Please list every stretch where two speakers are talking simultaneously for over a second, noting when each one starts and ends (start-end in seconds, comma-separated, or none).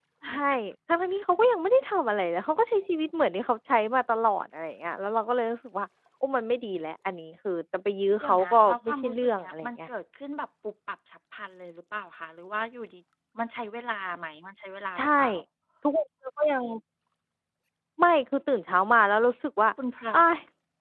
8.2-9.9